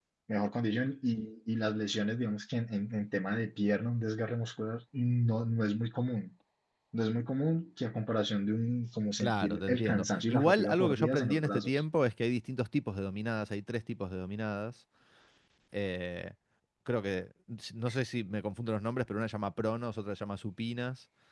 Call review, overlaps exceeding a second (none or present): present